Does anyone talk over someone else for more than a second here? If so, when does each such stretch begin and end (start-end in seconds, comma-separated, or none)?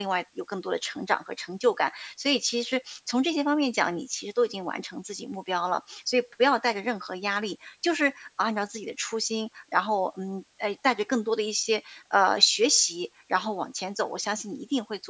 none